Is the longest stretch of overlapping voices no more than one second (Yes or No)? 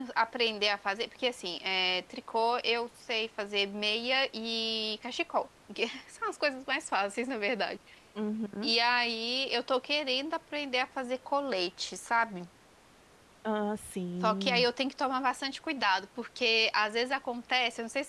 Yes